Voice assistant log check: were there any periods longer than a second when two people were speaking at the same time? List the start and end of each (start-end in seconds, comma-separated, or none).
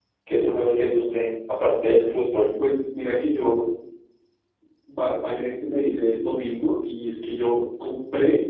none